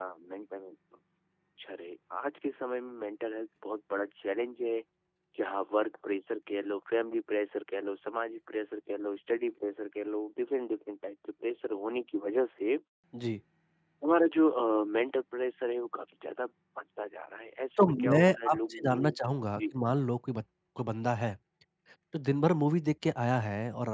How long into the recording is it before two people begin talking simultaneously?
17.8 s

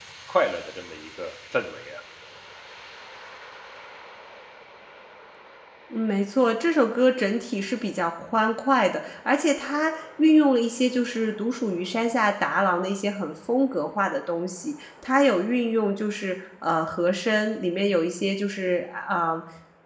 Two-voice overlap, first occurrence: none

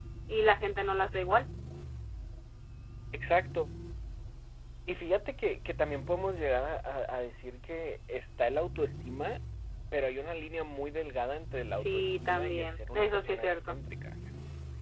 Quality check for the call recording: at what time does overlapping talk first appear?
11.6 s

